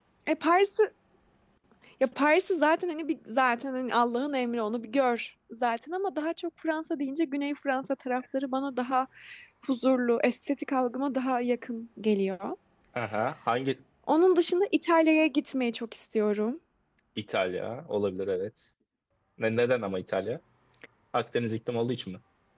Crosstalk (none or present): none